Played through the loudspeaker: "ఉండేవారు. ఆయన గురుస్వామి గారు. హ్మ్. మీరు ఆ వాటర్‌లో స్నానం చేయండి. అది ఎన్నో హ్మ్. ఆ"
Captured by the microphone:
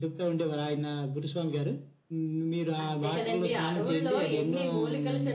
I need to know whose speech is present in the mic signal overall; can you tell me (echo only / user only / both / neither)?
both